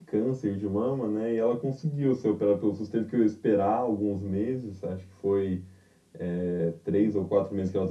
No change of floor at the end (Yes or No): Yes